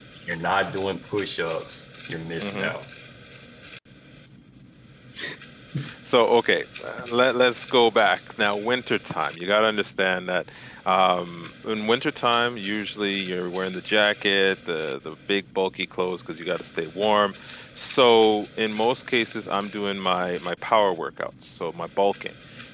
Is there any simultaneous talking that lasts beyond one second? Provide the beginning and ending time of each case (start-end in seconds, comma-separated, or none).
none